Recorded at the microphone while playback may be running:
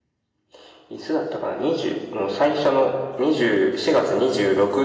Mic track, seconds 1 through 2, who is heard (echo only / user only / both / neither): echo only